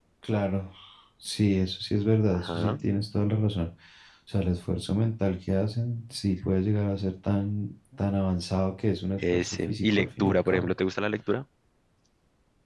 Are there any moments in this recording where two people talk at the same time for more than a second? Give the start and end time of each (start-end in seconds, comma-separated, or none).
9.2-10.7